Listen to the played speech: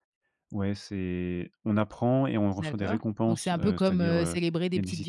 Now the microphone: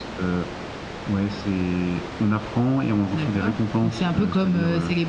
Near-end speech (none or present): none